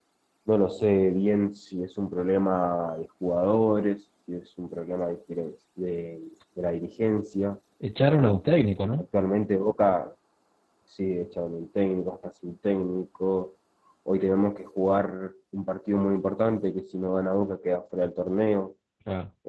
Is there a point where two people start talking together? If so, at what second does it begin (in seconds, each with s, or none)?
none